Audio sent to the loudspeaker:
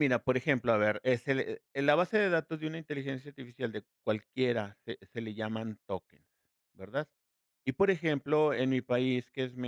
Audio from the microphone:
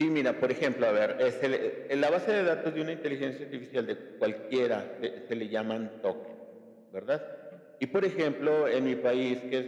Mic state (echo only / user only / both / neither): echo only